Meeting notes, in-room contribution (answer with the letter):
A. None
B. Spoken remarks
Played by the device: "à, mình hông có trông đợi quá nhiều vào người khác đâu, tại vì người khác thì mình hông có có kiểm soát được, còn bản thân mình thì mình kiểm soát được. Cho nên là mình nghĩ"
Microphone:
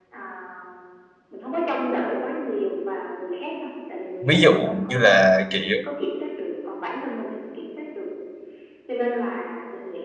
B